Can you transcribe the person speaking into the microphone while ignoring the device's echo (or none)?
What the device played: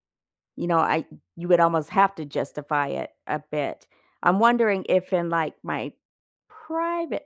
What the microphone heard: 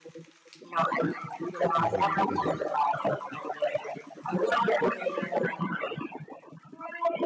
Mhm. Mhm.